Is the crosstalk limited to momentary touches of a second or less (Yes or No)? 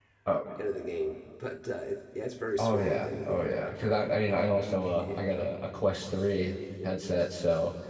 No